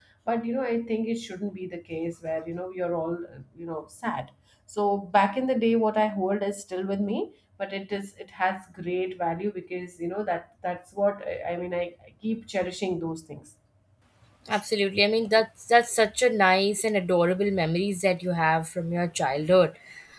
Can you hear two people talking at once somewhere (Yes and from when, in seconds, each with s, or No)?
No